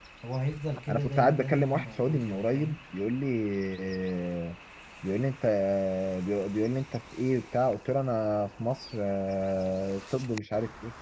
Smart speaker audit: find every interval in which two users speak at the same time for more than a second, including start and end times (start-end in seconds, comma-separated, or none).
0.9-2.8